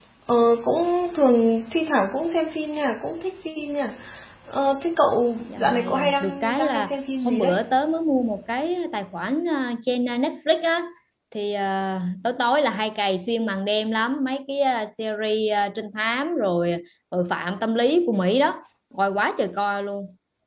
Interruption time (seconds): 5.5 s

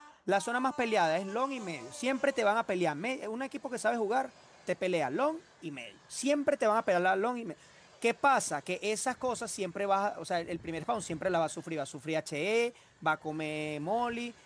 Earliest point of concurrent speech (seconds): none

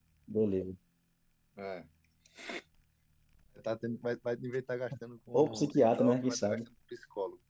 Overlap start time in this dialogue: 5.3 s

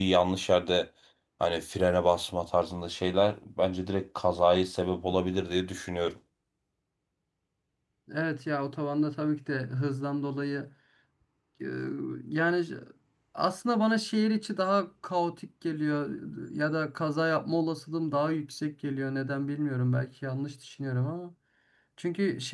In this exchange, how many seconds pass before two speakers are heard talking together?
none

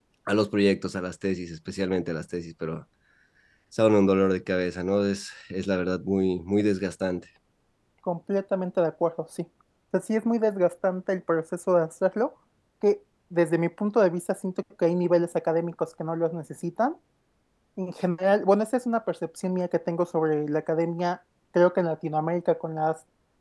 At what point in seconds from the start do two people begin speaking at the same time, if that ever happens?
none

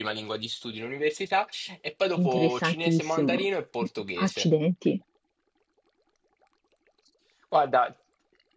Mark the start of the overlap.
2.2 s

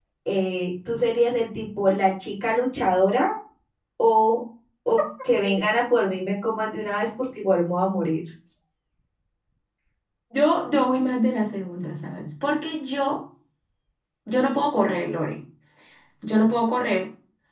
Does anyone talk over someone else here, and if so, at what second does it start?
none

